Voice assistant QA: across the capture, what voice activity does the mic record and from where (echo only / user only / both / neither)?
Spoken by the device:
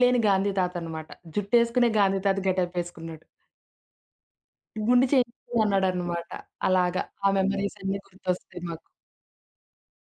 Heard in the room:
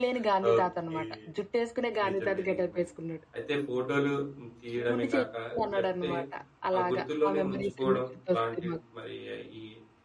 both